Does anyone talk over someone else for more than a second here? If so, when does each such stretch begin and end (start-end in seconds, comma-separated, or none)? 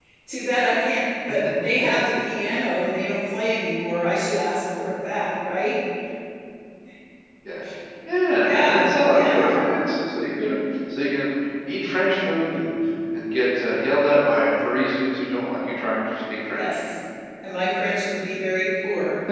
8.4-9.6